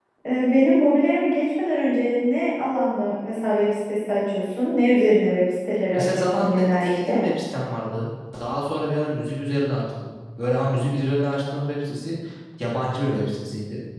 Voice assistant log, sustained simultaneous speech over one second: present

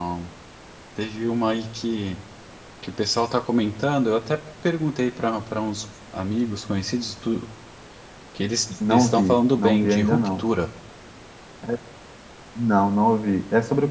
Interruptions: present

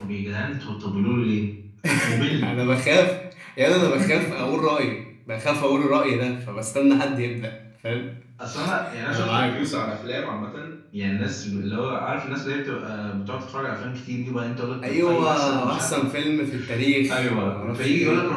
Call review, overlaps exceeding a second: present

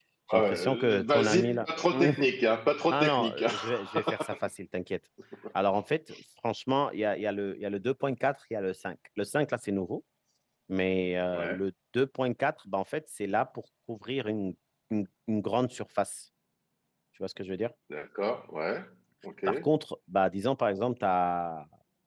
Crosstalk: present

